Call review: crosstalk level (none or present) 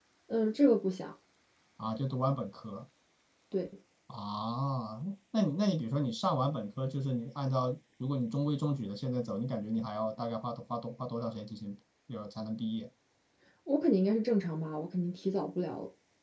none